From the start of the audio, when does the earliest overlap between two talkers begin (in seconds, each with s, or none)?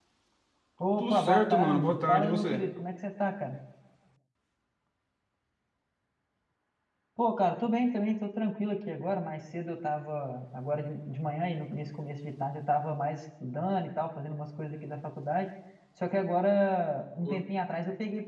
1.0 s